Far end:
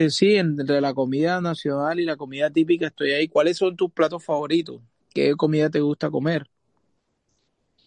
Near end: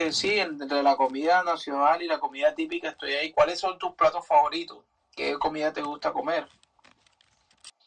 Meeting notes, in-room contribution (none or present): none